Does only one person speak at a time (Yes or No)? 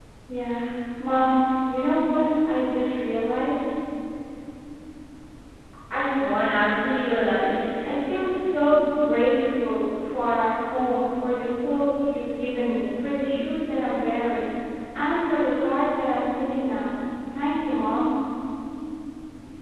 Yes